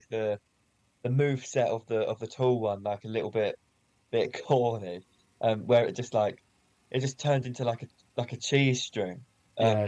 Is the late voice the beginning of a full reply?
No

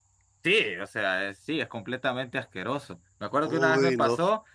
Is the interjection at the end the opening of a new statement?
No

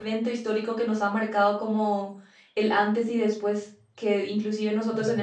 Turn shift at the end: No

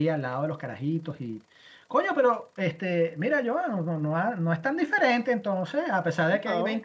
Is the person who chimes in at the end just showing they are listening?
No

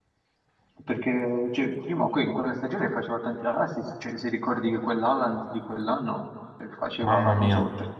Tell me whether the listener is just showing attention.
Yes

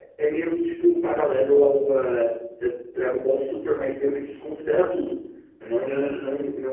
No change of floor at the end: Yes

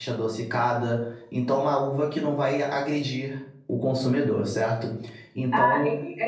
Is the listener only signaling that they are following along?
No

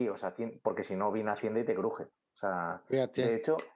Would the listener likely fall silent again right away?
Yes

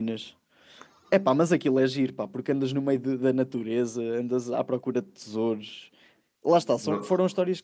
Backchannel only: Yes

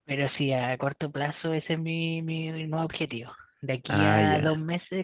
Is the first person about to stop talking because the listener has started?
No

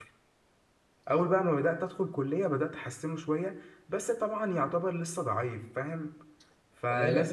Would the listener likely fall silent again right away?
Yes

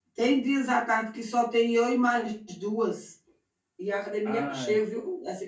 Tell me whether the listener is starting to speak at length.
No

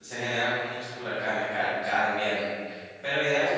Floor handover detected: Yes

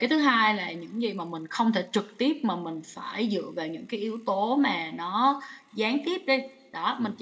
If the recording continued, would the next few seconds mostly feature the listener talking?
No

